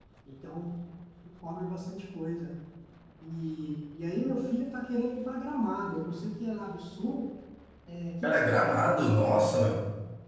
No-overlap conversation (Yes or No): No